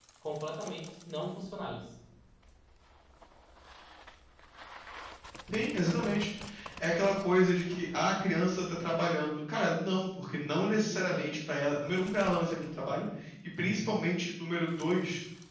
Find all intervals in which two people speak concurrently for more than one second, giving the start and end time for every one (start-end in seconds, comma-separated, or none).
none